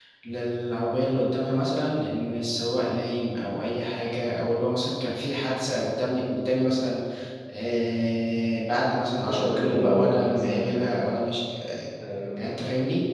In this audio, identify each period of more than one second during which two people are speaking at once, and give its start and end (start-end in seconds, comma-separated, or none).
9.2-11.0